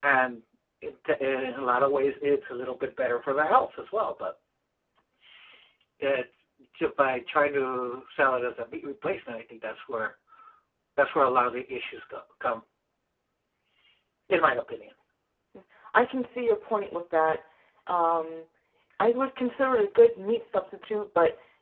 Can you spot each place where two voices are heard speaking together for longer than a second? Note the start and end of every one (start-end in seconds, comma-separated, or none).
none